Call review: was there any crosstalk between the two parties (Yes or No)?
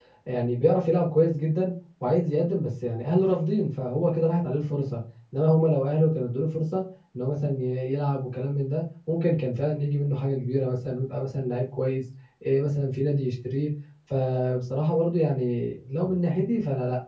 No